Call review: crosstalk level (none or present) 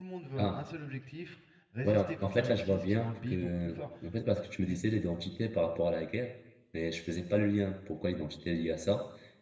present